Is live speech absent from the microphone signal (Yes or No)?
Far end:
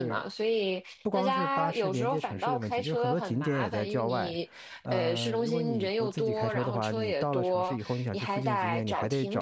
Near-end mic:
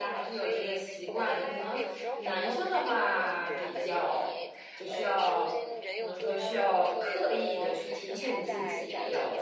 No